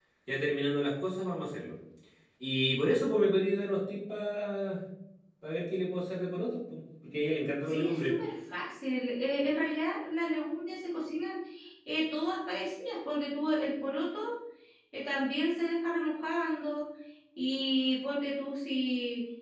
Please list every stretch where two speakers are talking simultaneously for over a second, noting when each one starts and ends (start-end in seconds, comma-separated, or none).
none